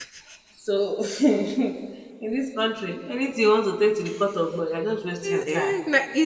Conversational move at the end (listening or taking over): taking over